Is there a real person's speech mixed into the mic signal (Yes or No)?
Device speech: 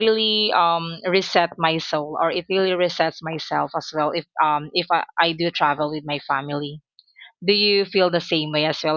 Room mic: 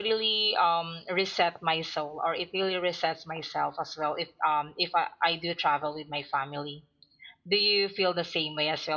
No